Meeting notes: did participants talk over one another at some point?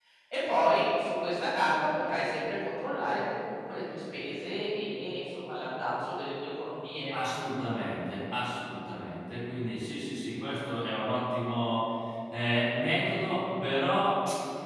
No

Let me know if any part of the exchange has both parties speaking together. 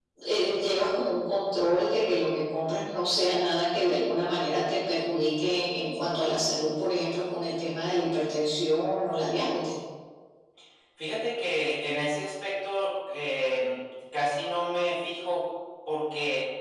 No

